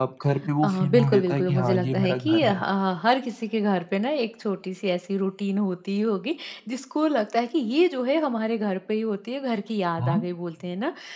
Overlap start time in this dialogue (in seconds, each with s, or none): 0.6 s